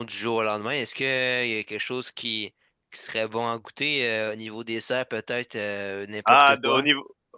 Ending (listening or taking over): taking over